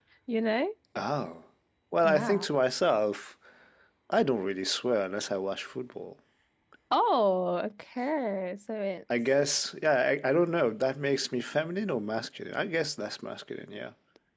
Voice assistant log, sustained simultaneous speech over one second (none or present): none